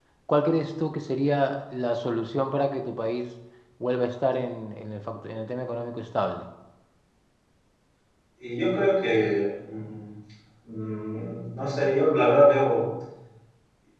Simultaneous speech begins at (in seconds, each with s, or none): none